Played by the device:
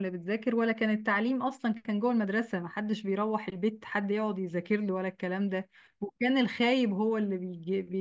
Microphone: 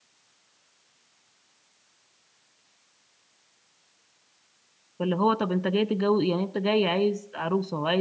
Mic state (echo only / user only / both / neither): user only